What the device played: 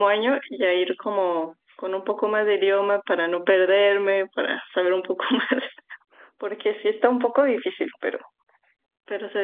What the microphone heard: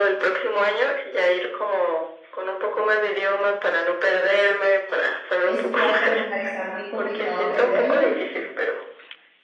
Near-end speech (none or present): present